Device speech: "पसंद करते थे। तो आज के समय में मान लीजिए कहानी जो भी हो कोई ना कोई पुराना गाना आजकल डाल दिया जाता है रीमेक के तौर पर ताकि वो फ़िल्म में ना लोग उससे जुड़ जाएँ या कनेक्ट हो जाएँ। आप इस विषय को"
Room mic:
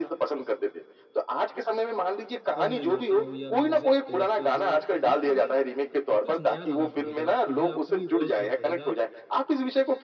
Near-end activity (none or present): present